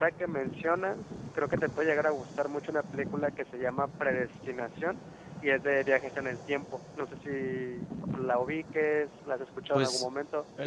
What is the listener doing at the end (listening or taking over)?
taking over